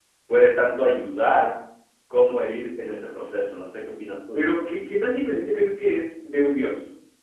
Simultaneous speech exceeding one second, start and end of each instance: none

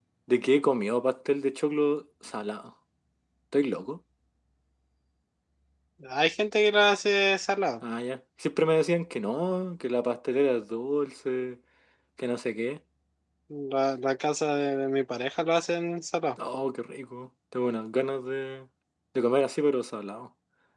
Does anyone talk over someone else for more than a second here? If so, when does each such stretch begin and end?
none

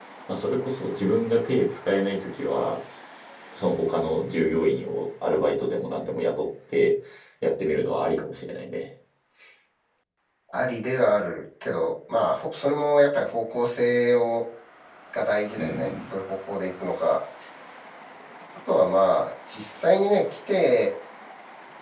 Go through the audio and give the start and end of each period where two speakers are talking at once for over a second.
none

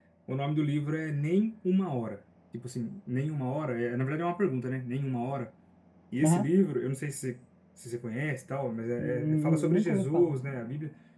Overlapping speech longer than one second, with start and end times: 9.0-10.4

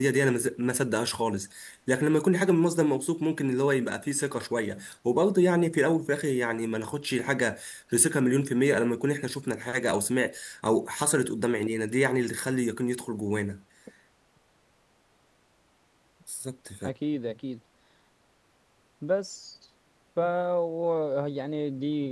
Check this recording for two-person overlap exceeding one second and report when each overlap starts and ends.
none

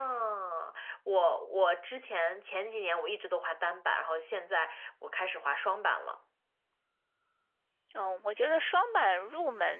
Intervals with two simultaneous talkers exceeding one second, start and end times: none

